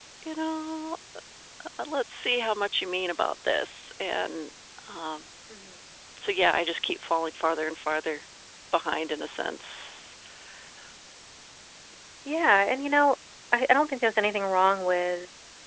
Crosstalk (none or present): none